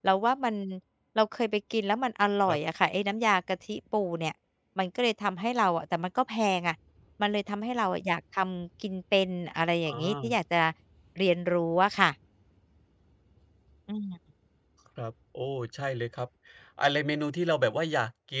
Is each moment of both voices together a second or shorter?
Yes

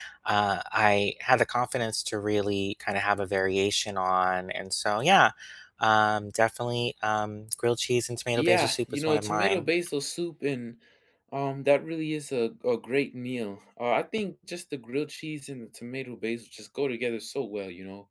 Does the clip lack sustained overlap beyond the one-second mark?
No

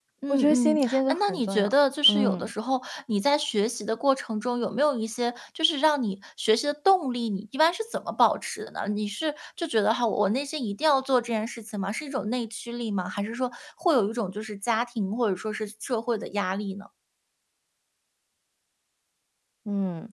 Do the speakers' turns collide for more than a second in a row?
Yes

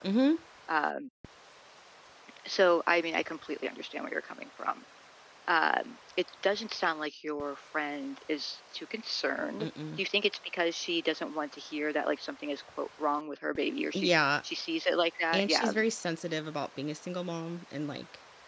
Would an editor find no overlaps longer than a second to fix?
Yes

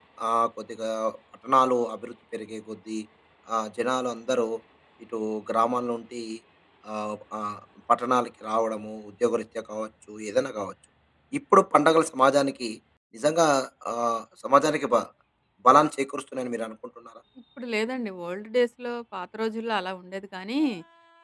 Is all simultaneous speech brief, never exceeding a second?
Yes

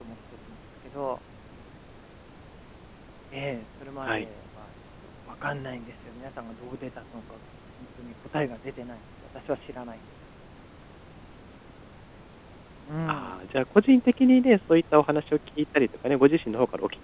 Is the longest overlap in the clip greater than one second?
No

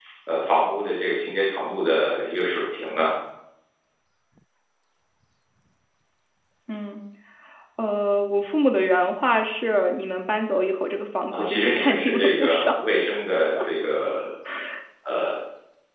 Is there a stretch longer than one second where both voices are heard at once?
Yes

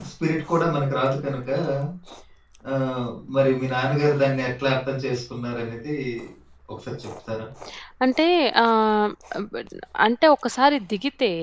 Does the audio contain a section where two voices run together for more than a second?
No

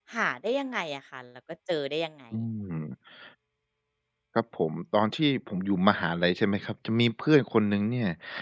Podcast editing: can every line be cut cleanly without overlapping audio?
Yes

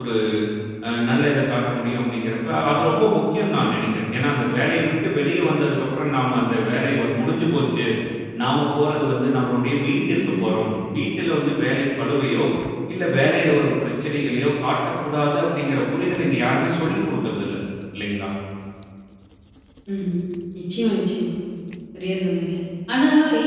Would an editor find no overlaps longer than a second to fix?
Yes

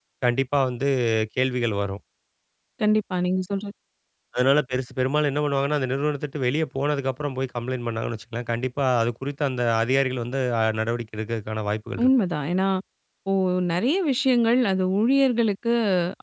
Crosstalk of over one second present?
No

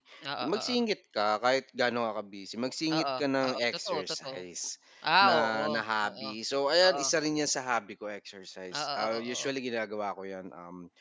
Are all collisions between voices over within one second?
No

